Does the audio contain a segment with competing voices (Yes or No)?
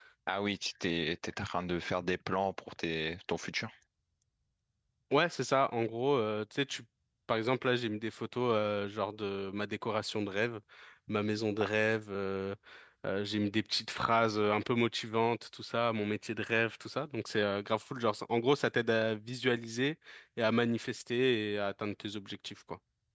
No